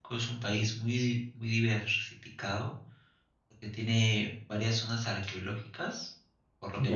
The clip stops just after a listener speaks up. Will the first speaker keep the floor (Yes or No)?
Yes